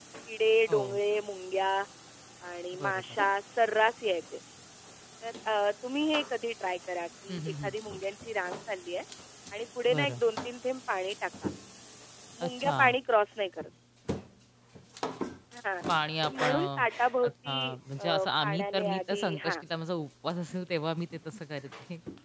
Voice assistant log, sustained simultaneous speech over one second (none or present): present